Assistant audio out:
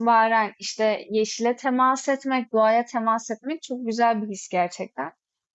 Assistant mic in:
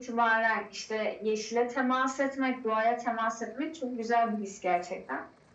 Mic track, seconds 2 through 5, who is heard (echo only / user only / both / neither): echo only